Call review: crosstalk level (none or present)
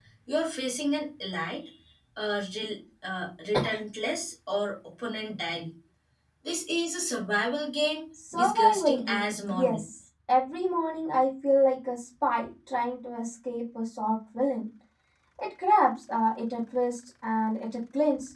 present